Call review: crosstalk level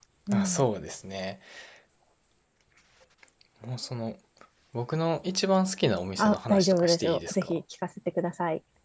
present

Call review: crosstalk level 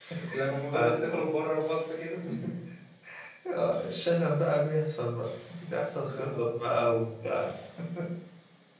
present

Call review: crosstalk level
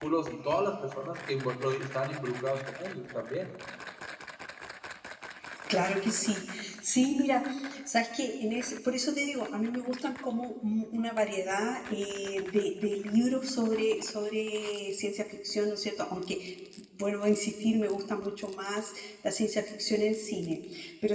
none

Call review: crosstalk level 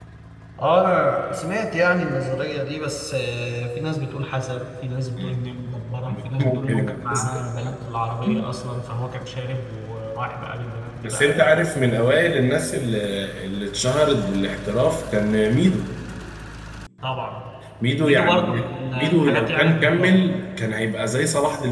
present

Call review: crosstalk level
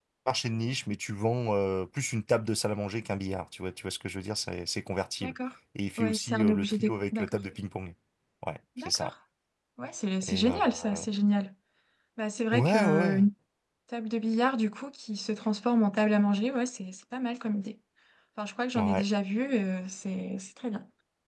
present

